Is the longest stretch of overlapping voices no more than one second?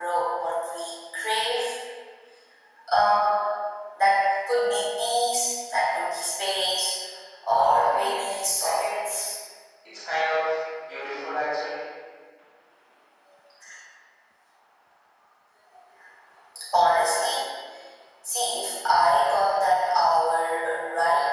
No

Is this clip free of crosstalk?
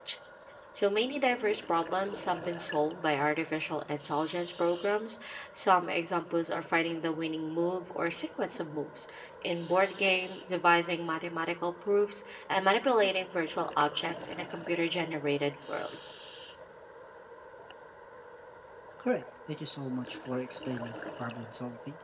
Yes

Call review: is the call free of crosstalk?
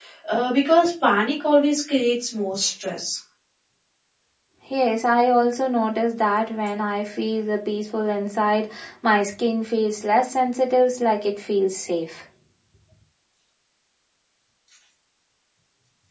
Yes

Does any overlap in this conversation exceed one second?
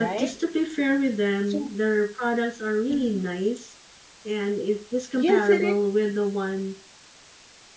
No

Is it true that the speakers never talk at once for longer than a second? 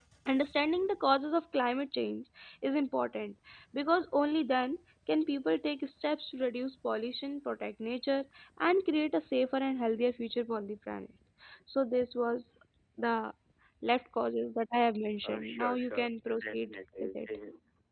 No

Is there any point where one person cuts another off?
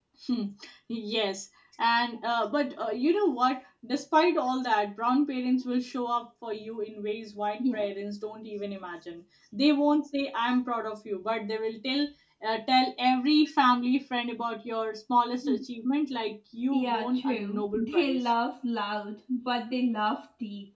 Yes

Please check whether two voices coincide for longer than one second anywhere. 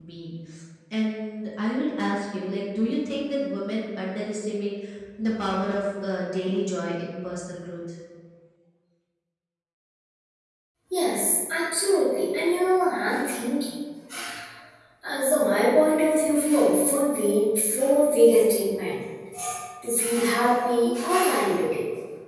No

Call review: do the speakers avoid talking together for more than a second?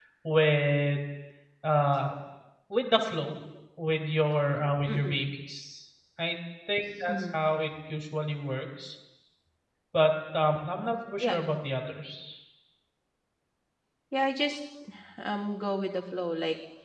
Yes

